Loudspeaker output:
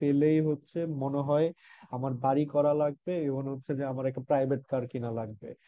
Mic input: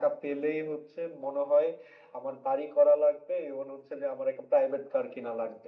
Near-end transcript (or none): none